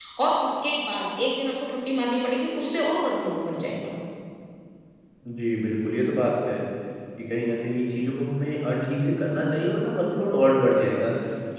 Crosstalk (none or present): none